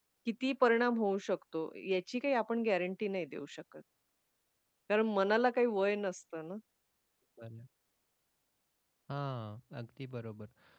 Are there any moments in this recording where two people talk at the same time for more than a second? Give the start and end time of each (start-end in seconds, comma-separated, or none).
none